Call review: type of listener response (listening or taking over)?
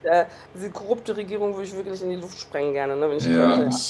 taking over